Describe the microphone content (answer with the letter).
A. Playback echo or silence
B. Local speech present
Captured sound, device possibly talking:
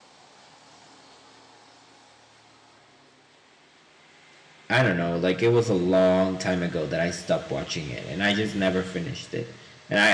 B